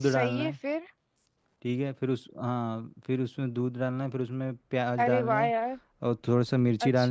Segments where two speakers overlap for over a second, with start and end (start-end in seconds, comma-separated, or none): none